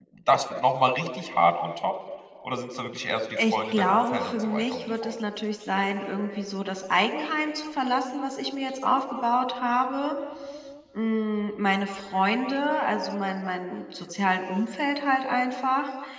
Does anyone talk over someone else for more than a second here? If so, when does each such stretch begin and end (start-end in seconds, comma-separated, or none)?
3.5-5.1